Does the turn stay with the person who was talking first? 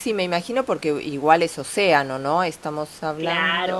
Yes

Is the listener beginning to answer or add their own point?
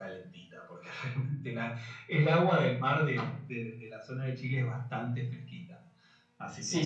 Yes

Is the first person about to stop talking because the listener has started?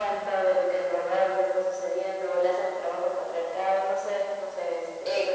Yes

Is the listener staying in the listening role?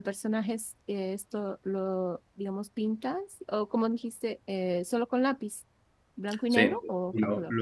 No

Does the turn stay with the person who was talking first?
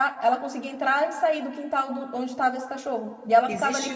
No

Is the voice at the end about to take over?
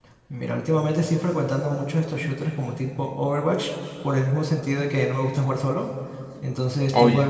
No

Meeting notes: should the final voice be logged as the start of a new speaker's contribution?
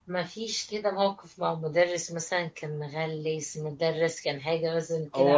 Yes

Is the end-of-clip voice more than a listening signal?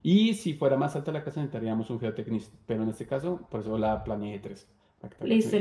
Yes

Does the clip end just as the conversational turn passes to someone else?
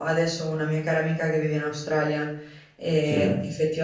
No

